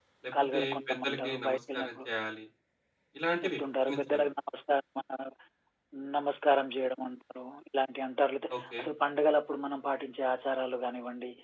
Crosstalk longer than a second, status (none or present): present